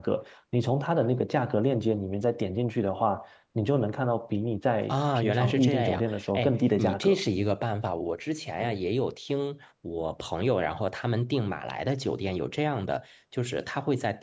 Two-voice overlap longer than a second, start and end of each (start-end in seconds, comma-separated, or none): 4.9-7.2